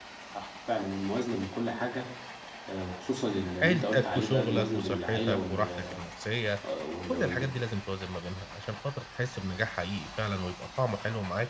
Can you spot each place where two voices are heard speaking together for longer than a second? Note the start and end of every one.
3.6-6.0

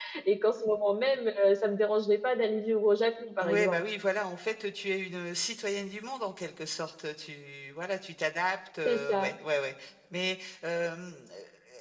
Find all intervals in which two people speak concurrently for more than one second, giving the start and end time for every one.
none

